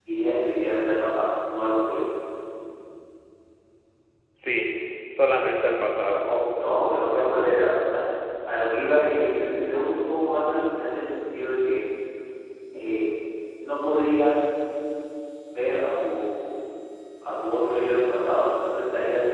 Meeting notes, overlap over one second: none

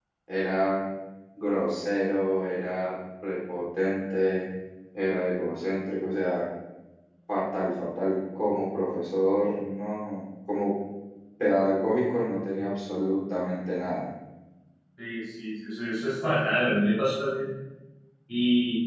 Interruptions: none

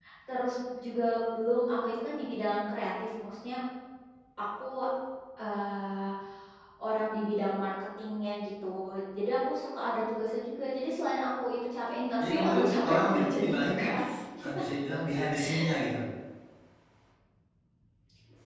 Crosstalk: present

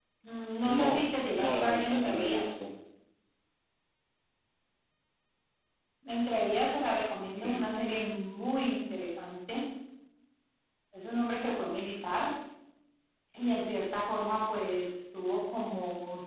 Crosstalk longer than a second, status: present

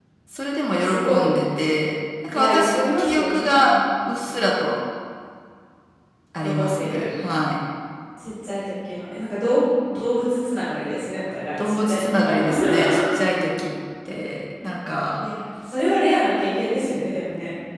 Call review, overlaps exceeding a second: present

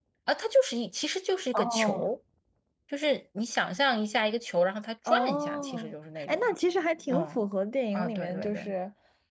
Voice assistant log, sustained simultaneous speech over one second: present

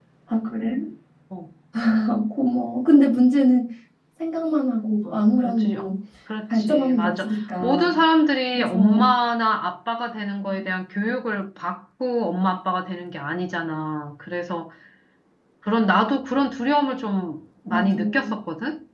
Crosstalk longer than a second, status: present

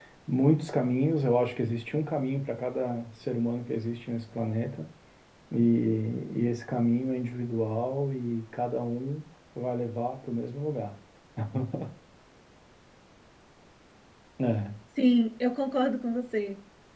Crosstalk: none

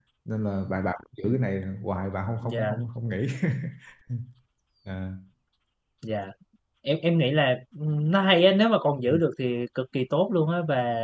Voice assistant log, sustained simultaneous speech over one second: none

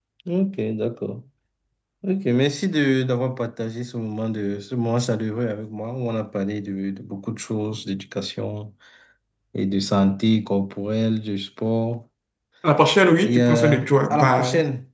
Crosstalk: present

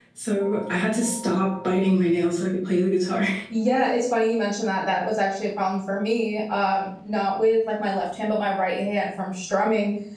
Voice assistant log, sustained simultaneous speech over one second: none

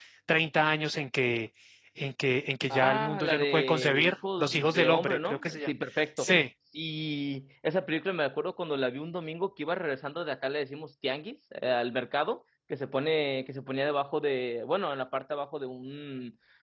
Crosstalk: present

